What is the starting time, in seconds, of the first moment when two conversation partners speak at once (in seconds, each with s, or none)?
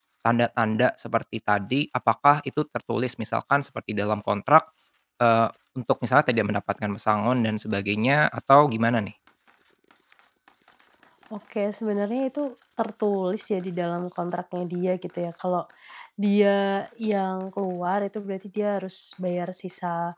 none